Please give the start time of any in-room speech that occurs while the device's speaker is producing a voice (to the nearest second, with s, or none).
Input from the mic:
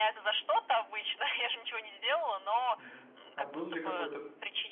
3 s